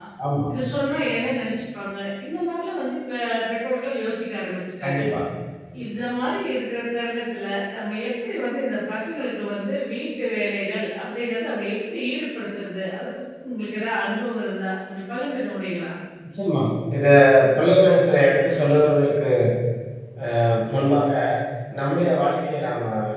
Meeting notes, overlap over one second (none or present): none